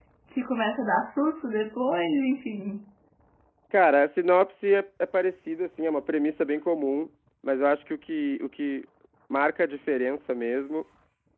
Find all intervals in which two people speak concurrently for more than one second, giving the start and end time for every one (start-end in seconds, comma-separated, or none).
none